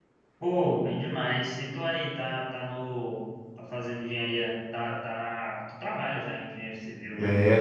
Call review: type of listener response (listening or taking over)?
taking over